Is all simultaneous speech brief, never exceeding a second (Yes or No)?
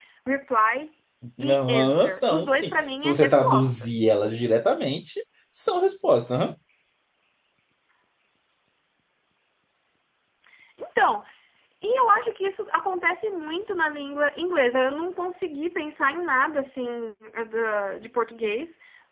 No